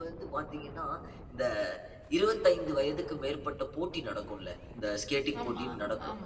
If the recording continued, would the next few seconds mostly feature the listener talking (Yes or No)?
No